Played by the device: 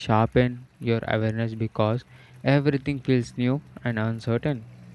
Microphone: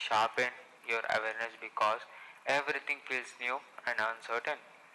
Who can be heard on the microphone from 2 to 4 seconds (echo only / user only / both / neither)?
echo only